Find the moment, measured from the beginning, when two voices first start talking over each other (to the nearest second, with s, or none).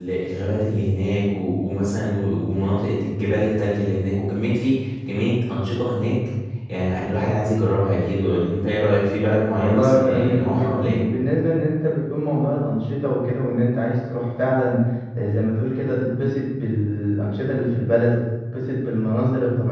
10 s